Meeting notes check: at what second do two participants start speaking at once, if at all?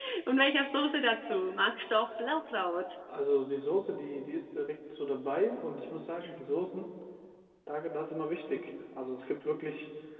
none

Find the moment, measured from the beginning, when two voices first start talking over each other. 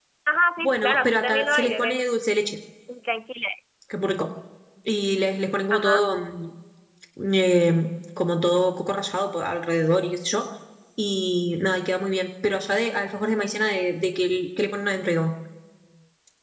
0.6 s

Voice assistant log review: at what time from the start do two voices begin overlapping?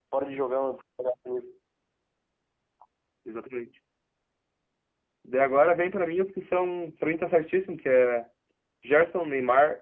none

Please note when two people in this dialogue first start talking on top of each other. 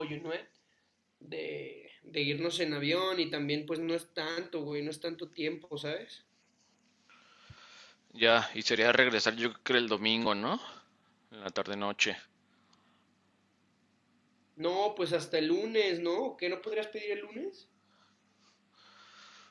none

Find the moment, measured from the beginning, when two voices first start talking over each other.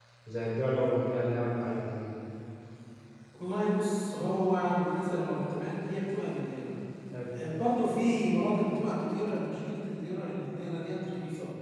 none

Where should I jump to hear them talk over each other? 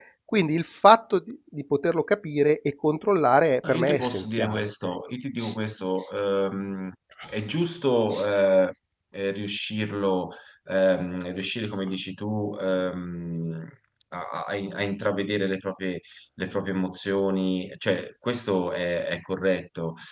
3.6 s

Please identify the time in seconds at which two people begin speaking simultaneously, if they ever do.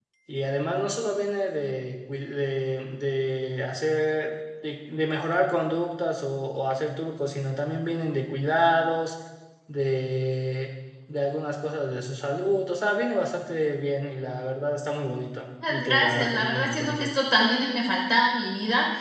15.6 s

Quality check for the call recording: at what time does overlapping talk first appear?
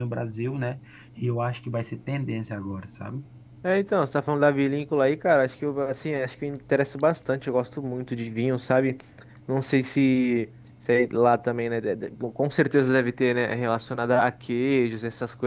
none

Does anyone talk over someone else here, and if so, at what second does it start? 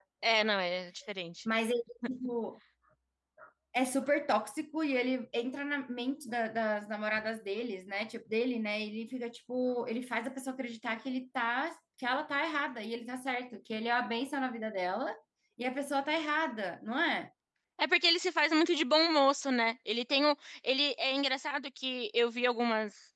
none

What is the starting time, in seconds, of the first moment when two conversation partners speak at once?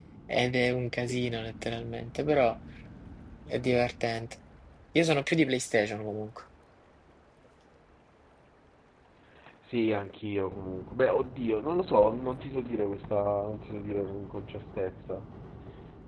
none

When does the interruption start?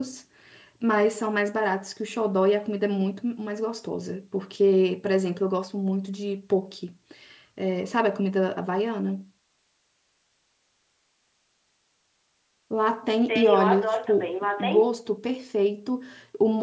13.3 s

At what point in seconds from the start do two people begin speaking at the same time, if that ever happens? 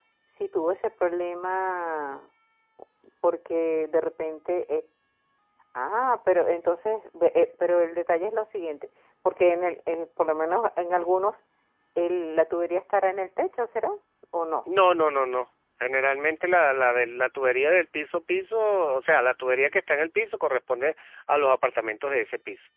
none

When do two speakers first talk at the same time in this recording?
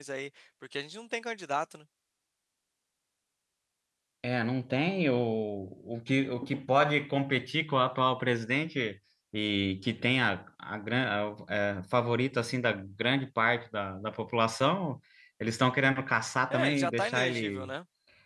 16.5 s

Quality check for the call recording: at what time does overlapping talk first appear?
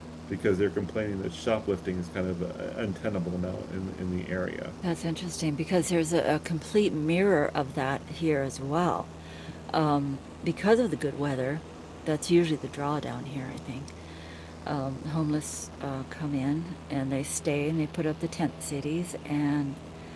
none

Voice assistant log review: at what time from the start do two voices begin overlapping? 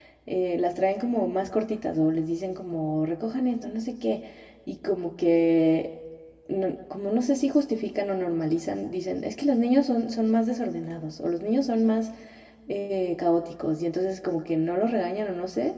none

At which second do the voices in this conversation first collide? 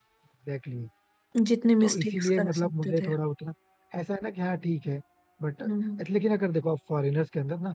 1.8 s

